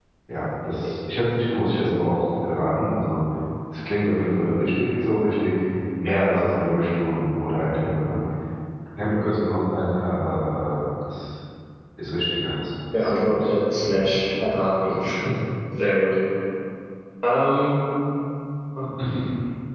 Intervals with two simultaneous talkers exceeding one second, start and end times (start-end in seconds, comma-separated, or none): 12.9-14.8